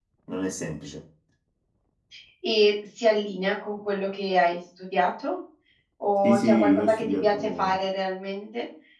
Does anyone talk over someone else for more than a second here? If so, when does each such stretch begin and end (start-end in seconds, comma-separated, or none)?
6.2-7.7